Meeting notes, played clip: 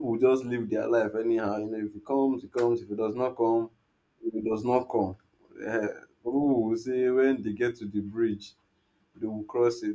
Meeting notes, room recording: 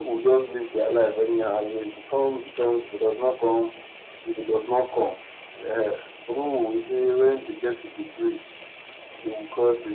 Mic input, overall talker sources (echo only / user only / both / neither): echo only